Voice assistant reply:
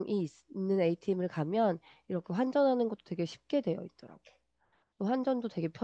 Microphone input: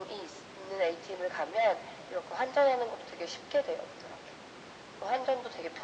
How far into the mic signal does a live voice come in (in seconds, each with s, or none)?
none